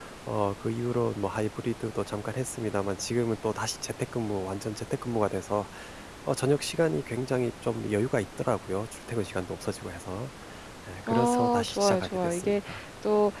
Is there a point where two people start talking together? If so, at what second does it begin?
11.1 s

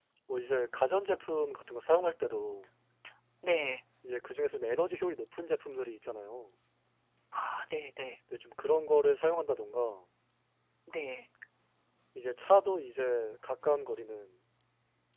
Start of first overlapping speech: none

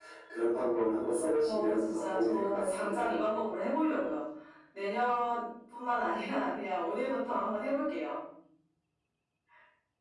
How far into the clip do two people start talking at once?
1.4 s

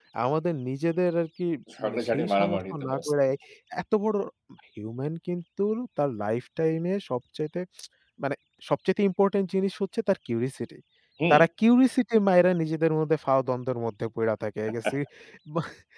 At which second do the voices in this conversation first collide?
1.8 s

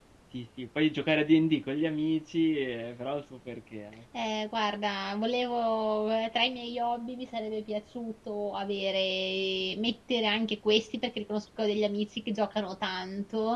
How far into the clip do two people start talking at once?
none

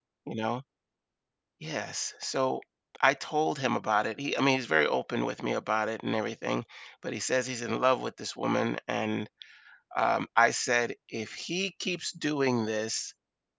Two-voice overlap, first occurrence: none

